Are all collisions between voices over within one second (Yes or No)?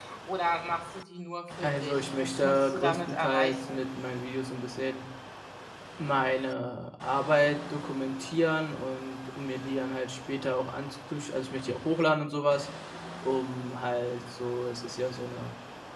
No